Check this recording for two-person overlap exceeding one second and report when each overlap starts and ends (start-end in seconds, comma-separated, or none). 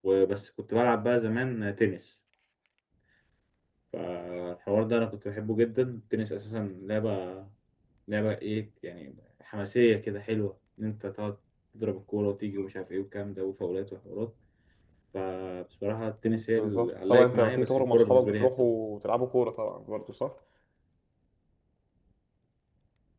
16.2-18.7